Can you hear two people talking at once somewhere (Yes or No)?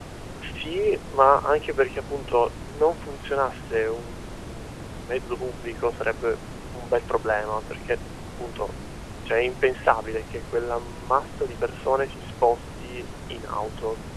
No